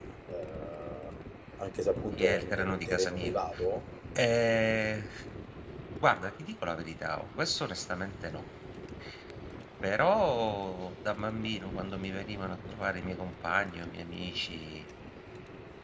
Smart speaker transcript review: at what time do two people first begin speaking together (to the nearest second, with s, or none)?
2 s